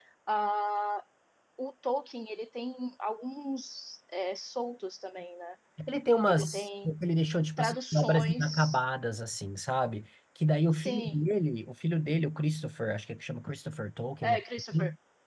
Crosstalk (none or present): present